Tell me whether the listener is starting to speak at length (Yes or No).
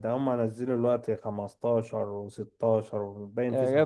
Yes